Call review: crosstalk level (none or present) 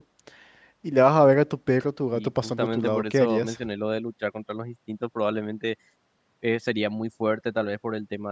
present